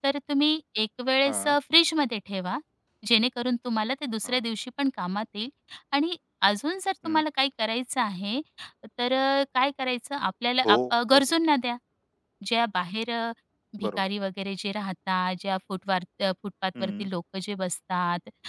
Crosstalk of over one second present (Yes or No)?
No